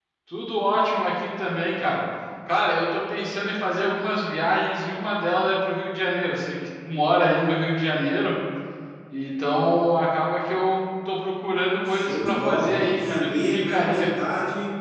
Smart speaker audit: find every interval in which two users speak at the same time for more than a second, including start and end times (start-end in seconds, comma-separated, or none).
11.8-14.0